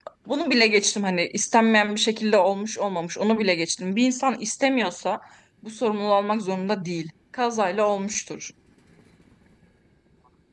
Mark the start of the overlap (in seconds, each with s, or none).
none